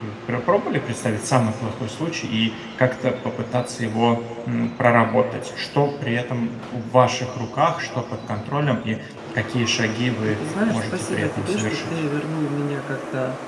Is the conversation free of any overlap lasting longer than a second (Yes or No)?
No